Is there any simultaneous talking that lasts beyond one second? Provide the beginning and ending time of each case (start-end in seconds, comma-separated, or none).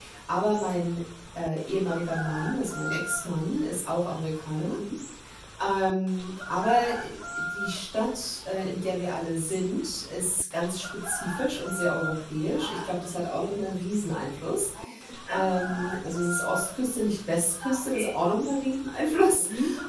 none